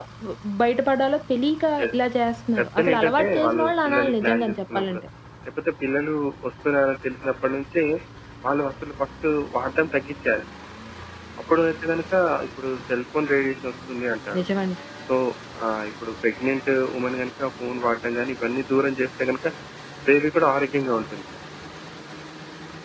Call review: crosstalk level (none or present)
present